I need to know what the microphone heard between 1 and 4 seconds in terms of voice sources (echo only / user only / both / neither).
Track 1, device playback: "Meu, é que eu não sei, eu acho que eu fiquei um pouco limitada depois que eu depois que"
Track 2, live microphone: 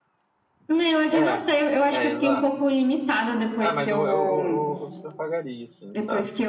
both